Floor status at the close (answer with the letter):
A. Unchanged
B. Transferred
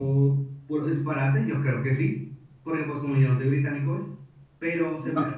A